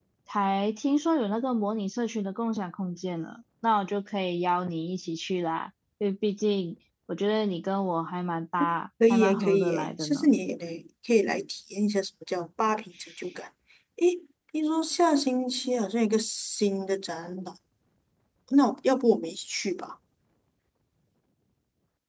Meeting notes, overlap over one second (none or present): present